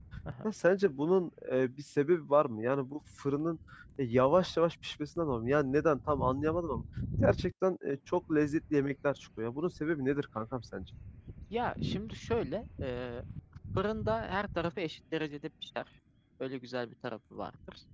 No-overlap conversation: Yes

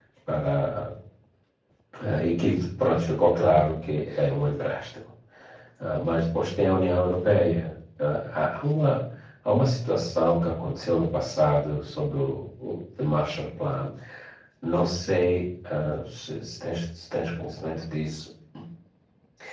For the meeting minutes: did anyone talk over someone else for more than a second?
No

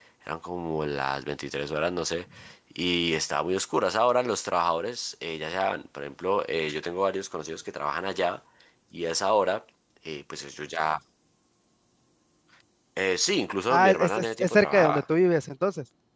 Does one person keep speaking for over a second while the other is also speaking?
Yes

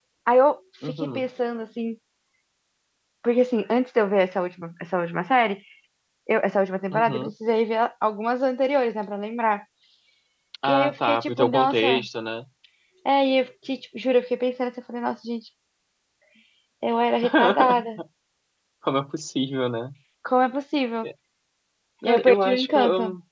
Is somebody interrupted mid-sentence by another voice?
Yes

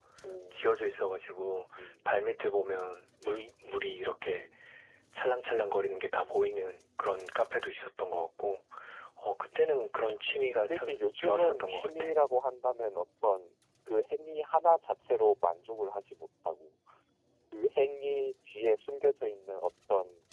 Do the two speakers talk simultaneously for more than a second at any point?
Yes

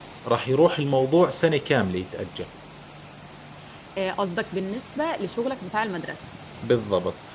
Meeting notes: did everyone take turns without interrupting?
Yes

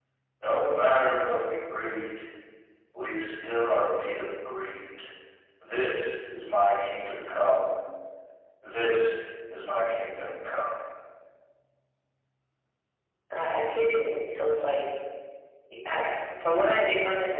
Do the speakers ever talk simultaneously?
No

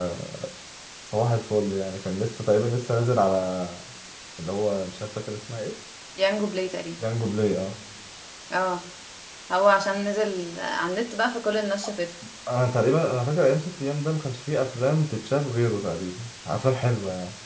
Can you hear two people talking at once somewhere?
No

